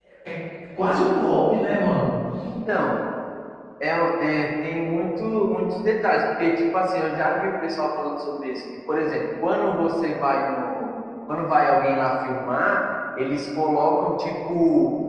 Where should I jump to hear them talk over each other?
none

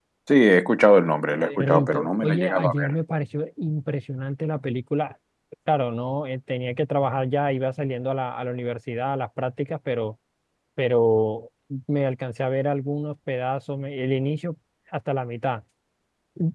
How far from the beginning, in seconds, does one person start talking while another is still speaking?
1.4 s

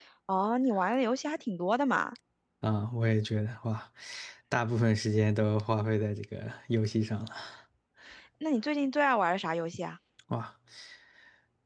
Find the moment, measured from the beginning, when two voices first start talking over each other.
none

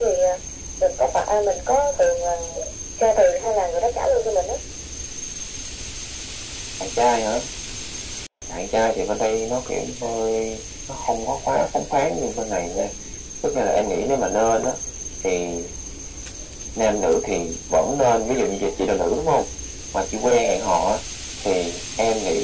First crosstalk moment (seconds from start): none

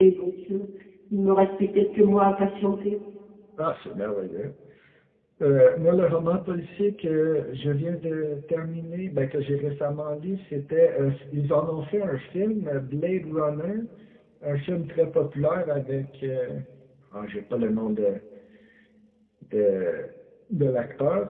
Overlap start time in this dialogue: none

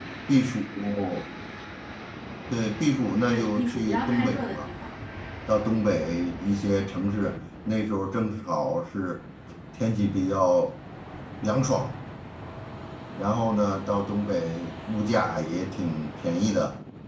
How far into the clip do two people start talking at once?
3.3 s

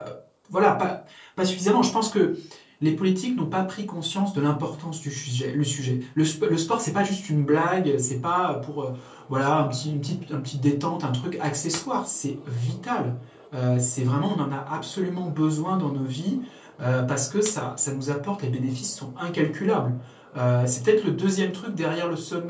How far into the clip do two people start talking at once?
none

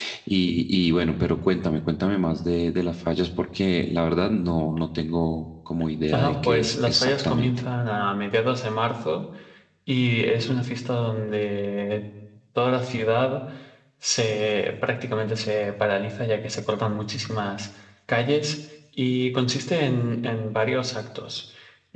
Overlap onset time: 6.1 s

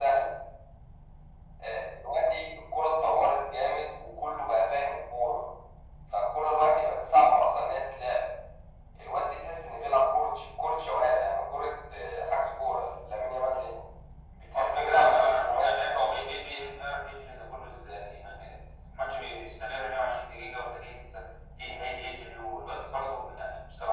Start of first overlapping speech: 14.6 s

